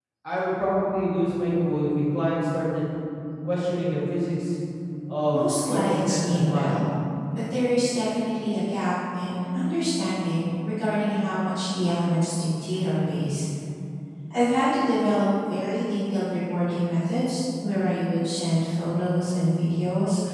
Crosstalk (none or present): present